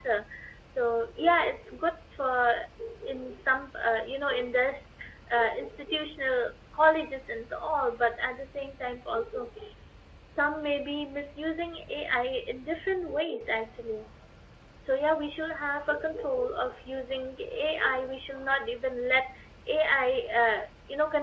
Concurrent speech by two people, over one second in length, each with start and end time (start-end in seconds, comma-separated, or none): none